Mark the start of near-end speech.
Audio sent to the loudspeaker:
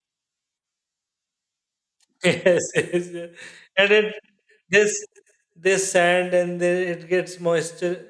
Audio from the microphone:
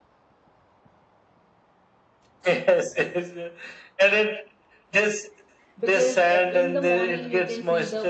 5.8 s

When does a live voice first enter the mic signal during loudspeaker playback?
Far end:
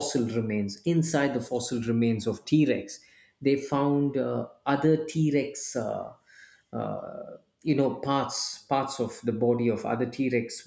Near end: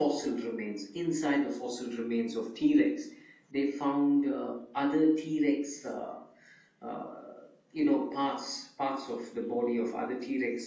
none

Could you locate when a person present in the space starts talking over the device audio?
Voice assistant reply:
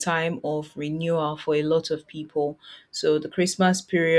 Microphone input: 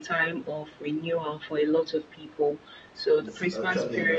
3.2 s

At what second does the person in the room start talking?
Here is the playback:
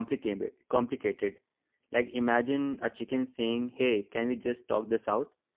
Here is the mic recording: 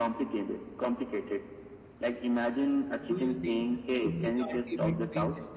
3.1 s

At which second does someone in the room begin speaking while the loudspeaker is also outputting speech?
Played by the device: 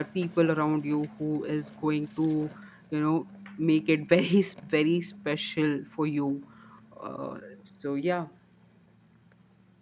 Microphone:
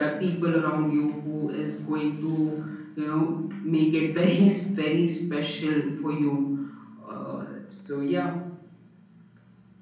none

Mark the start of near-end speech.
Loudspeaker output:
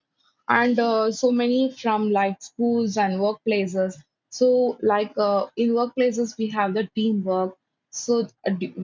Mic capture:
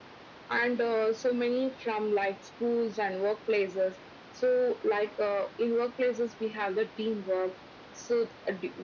none

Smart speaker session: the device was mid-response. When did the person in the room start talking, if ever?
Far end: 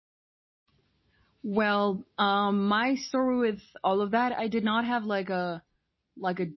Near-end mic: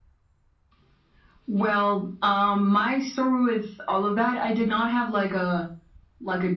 none

